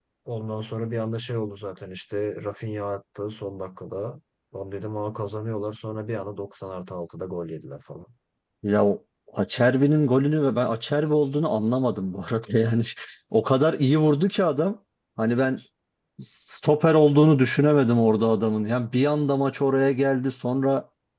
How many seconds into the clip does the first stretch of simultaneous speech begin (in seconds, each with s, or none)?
none